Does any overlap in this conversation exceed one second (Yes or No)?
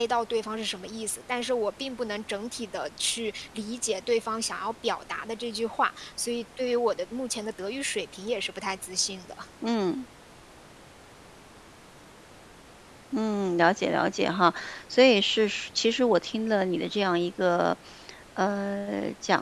No